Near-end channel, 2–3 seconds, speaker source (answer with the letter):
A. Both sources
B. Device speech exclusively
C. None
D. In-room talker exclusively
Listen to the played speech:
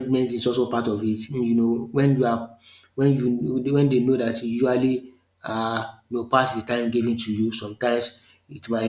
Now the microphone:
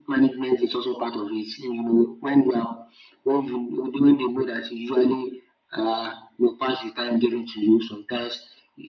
B